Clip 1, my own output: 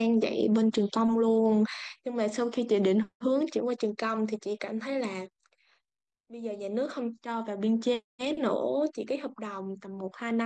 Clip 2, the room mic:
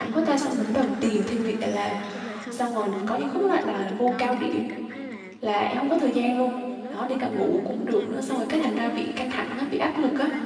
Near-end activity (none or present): present